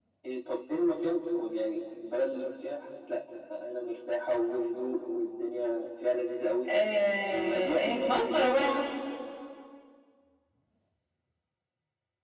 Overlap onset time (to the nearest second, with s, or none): 7 s